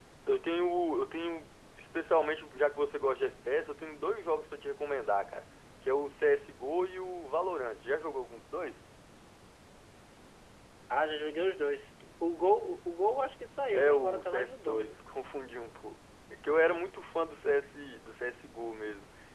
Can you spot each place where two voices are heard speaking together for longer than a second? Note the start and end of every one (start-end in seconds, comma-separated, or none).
13.7-15.0